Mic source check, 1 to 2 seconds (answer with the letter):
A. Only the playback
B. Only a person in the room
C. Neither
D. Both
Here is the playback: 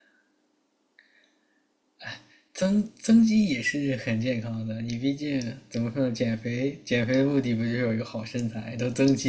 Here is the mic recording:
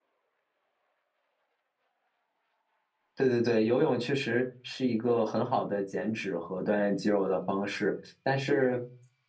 C